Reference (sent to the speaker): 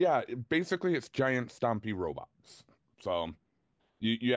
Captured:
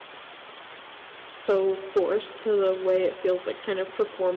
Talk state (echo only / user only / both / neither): user only